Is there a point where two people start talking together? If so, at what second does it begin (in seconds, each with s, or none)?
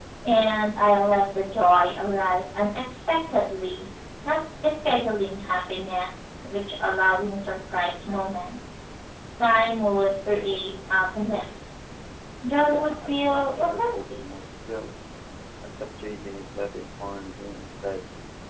12.5 s